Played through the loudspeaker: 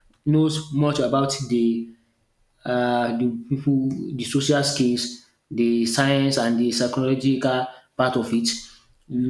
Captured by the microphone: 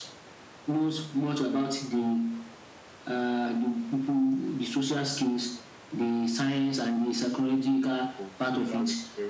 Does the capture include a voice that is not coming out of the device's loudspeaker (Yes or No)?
Yes